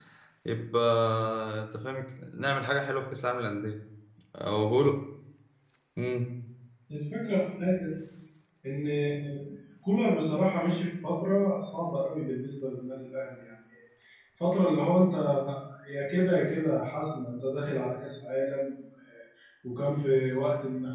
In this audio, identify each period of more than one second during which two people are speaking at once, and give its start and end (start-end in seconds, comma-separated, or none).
none